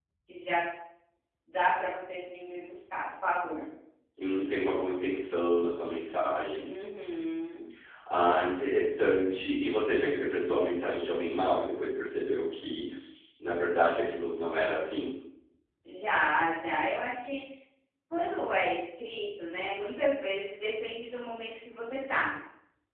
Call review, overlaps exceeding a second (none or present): none